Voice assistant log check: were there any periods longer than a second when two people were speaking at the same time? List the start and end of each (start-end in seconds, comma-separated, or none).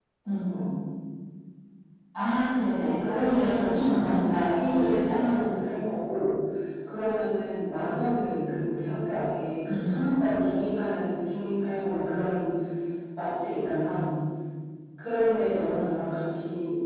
2.8-5.3